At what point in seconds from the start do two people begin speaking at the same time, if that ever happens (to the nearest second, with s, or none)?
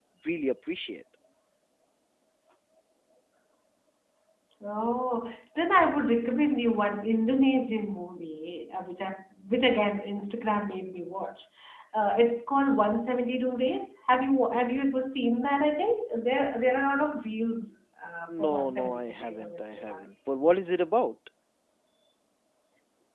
18 s